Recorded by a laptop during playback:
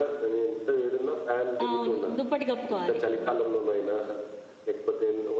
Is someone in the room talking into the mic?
Yes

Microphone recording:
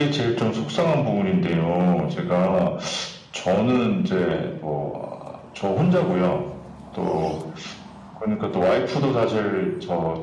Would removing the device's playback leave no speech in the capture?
Yes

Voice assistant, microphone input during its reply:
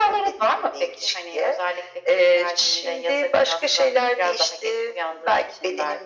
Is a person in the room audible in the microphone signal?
No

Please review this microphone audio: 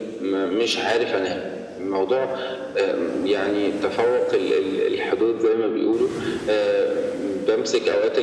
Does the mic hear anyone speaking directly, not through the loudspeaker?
No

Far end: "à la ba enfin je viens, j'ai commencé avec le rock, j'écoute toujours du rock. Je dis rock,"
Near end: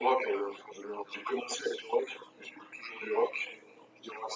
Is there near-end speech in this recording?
No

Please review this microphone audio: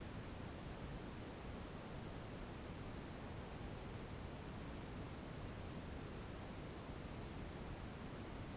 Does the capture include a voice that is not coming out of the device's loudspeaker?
No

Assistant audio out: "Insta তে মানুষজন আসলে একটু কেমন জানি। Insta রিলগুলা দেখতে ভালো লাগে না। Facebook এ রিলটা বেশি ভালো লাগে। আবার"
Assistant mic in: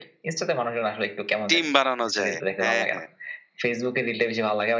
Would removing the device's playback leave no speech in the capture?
No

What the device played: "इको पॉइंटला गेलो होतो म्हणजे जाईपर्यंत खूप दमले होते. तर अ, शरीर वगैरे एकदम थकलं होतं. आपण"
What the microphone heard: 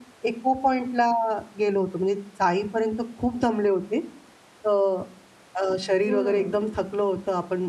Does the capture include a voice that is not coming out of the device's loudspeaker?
Yes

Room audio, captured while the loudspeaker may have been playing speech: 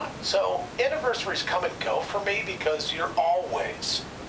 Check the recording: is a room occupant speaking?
No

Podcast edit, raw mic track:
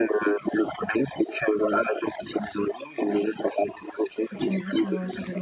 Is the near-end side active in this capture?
Yes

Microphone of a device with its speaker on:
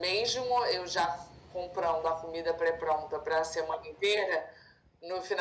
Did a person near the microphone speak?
No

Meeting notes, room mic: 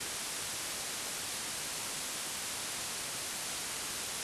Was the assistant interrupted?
No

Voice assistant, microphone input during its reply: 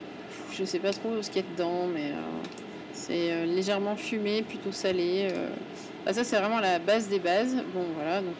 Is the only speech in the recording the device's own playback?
Yes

